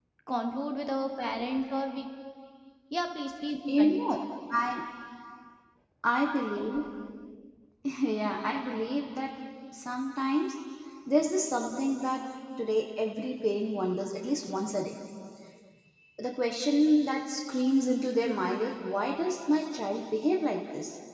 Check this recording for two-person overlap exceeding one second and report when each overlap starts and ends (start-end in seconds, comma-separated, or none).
none